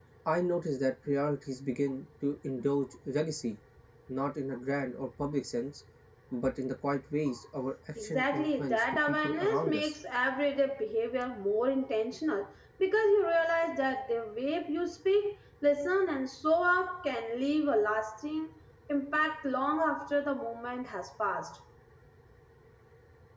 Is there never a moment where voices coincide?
No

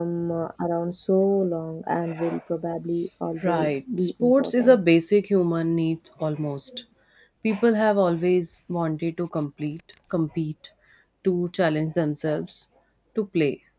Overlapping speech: Yes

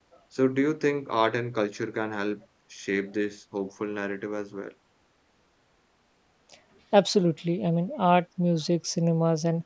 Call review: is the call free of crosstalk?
Yes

